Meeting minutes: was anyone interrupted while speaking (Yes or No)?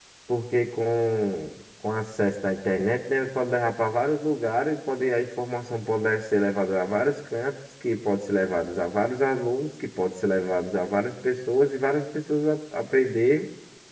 No